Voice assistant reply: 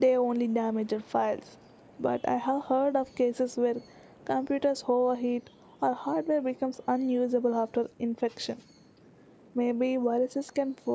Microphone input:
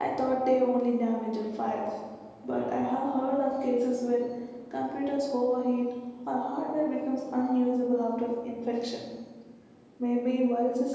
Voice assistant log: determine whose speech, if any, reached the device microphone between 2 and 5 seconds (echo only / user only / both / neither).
echo only